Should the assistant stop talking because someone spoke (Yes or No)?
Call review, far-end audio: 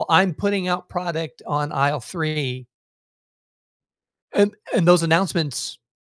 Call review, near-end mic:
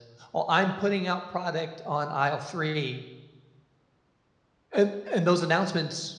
No